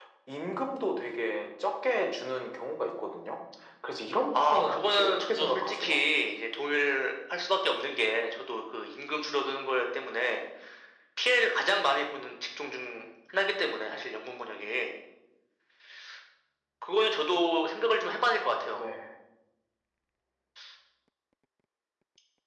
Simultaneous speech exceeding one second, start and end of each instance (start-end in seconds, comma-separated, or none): 4.3-6.0